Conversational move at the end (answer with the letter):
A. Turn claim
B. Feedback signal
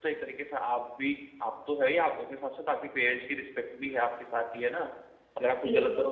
B